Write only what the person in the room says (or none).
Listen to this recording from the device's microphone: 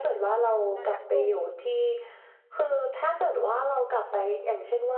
โดนชักจูง